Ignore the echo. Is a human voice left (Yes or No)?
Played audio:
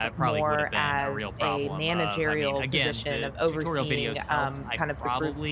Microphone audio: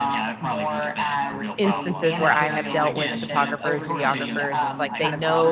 Yes